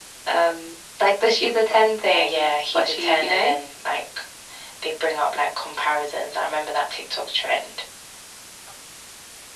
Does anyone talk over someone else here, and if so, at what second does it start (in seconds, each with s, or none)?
2.1 s